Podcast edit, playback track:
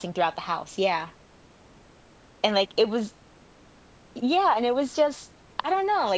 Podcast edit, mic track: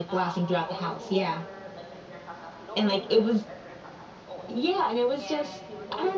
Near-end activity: present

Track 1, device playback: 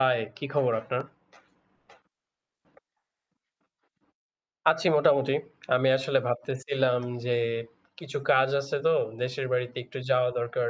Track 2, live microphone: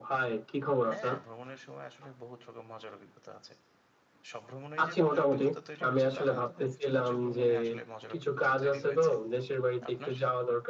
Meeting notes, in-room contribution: present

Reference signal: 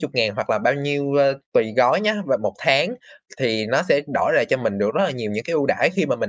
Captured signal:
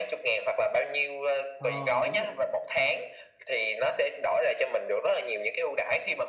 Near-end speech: present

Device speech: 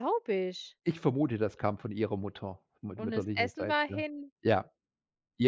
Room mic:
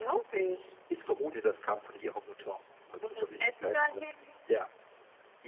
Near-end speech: none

